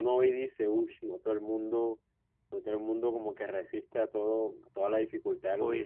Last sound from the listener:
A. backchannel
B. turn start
B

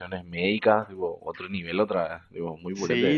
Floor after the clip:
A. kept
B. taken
B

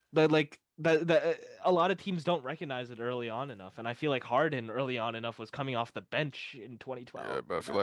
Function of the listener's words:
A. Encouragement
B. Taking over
B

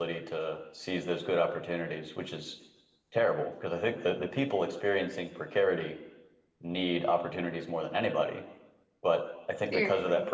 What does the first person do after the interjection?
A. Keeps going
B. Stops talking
A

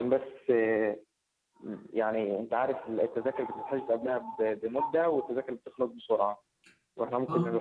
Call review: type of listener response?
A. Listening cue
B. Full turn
A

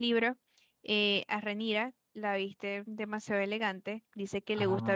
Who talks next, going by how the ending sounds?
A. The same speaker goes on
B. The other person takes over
A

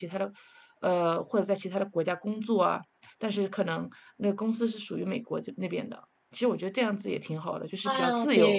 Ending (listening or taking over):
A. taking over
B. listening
A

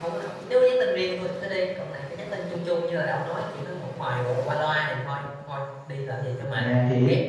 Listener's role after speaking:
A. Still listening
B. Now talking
B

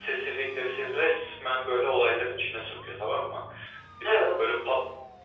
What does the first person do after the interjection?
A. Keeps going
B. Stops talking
A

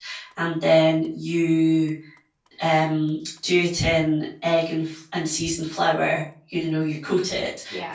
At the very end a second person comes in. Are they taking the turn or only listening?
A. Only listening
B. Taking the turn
A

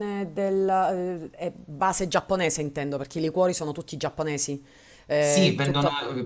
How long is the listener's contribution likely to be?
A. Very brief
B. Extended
B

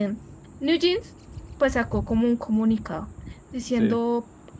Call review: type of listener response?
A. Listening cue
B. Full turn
A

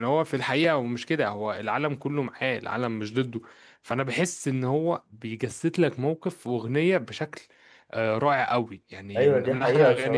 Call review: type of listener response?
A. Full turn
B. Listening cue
A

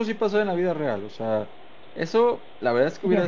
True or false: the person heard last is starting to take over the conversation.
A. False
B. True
A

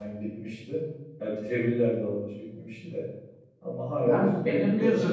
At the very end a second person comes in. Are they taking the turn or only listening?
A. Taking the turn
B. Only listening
A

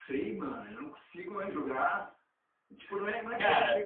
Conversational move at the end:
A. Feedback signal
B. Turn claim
A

